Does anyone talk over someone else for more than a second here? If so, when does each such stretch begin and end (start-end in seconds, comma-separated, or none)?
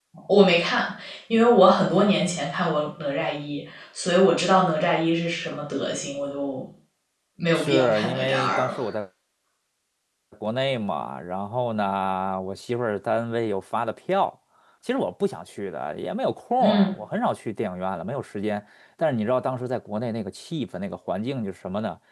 7.6-8.9